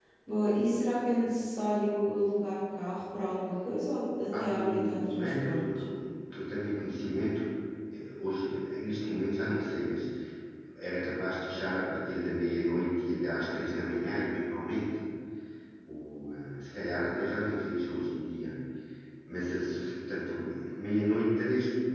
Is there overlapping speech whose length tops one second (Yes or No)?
Yes